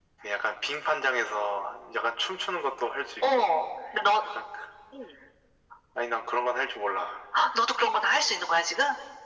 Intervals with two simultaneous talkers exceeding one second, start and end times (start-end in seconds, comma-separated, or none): none